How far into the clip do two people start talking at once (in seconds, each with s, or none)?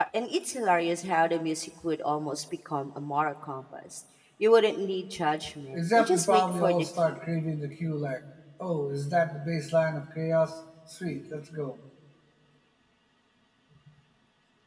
5.7 s